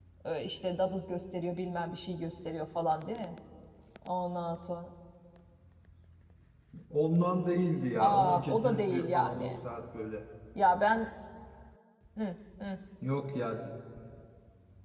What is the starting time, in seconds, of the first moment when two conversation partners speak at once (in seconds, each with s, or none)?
8.0 s